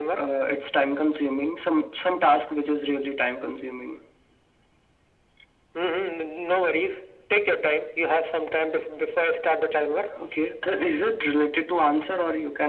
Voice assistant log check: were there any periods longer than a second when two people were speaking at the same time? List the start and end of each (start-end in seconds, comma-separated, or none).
none